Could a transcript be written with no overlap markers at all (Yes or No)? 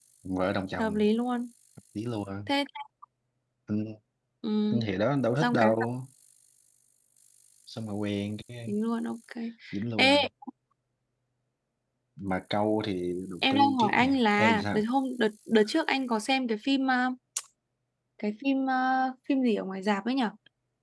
No